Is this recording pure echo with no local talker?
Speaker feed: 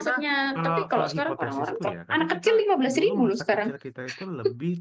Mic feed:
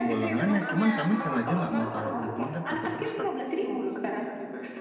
No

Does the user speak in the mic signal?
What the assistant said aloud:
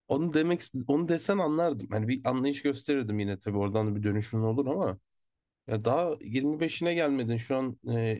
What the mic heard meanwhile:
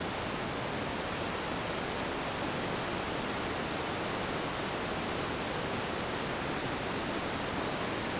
No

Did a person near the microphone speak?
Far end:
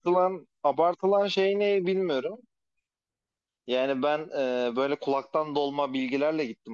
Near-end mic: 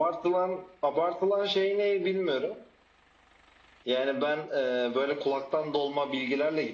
No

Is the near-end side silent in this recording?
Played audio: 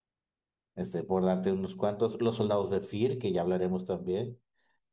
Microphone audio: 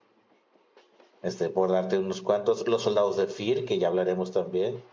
Yes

